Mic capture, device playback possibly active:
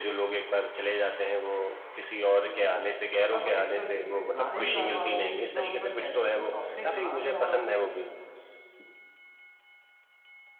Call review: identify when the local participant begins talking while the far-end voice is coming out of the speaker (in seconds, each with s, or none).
2.3 s